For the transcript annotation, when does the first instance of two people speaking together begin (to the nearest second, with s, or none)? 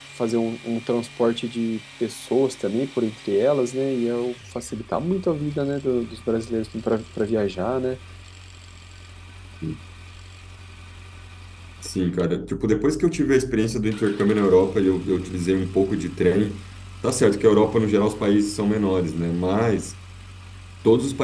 none